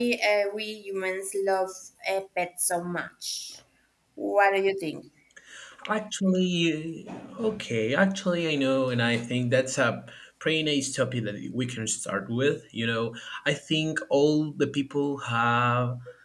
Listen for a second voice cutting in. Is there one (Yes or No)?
No